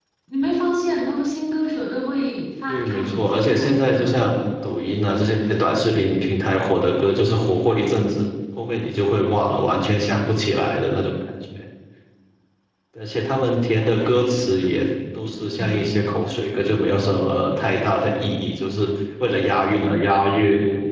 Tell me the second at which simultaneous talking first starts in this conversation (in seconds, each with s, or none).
2.7 s